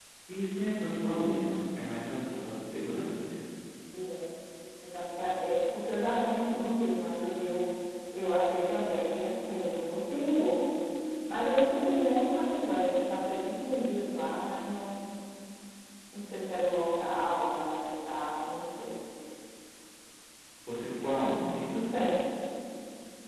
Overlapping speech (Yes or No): No